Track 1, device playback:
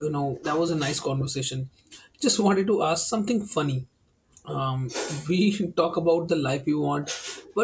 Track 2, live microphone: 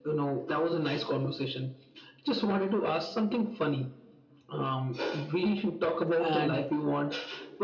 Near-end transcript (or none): and